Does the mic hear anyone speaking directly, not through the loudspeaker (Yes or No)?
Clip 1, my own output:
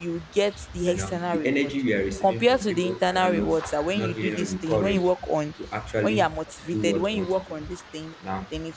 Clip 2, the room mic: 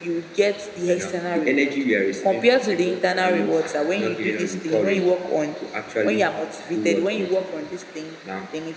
No